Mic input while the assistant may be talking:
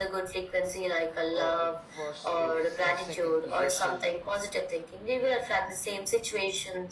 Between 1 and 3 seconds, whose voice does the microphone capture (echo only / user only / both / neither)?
both